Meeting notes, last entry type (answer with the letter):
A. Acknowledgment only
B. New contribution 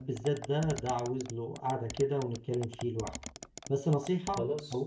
A